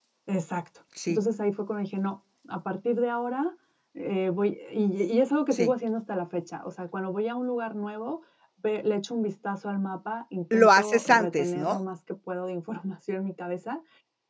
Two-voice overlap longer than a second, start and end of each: 10.5-11.8

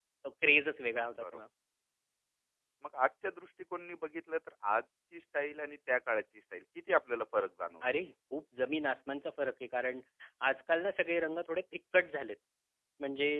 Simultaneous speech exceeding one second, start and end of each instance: none

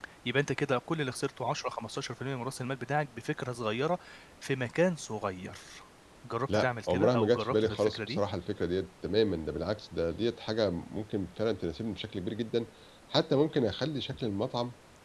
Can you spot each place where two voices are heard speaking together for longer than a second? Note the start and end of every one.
6.5-8.2

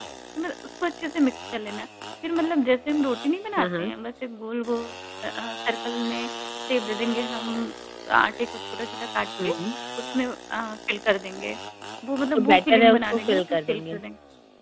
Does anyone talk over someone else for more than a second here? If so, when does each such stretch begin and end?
12.3-14.0

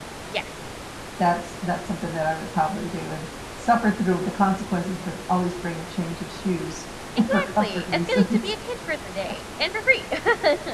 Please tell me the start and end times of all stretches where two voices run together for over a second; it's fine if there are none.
7.3-8.5

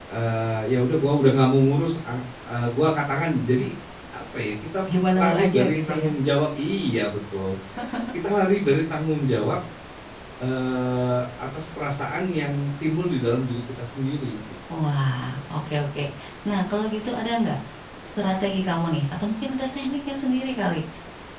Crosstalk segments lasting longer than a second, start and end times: 4.9-6.1

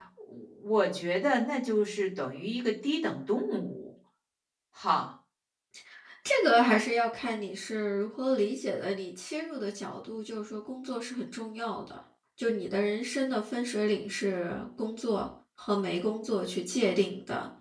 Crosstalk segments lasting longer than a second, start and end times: none

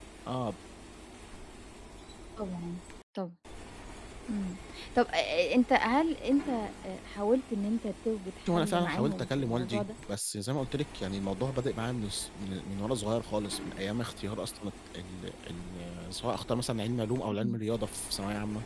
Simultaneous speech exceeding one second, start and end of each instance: 8.5-9.9

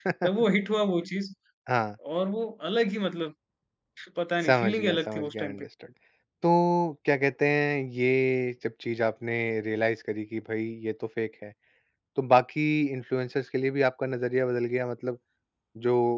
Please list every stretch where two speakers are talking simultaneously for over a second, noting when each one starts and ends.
4.4-5.7

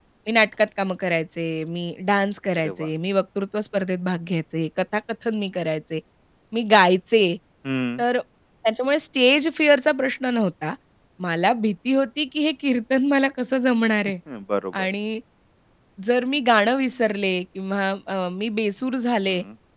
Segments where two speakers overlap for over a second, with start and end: none

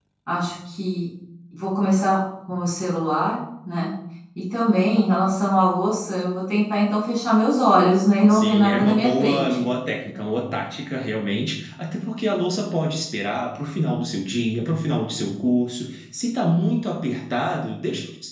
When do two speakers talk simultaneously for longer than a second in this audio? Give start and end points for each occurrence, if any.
8.3-9.6

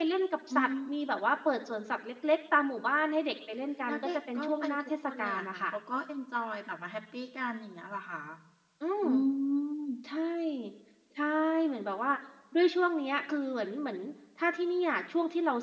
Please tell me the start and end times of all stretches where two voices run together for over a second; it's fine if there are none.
3.9-5.7

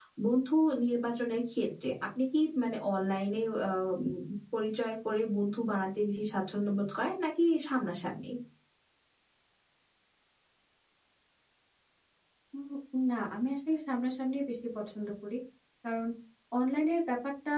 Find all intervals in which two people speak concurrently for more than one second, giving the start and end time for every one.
none

